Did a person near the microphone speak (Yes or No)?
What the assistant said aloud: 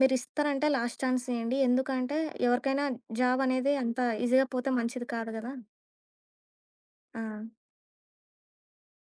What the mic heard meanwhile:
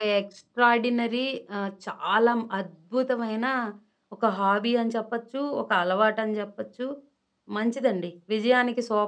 Yes